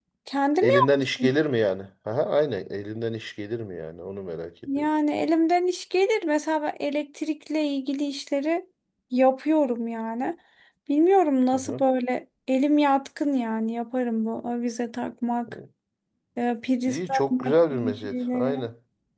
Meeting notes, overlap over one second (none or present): present